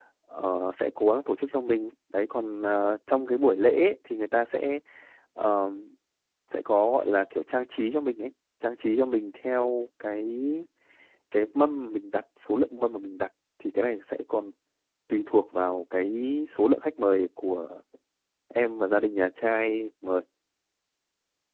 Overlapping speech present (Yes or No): No